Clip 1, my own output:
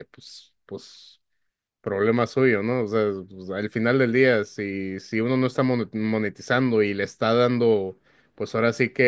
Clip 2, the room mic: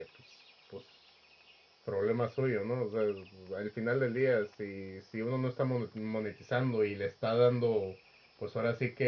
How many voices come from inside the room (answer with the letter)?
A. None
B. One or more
A